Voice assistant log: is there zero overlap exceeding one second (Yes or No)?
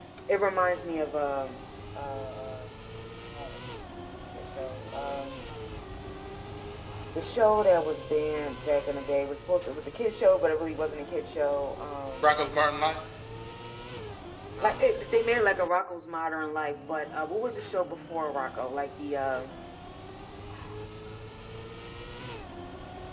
Yes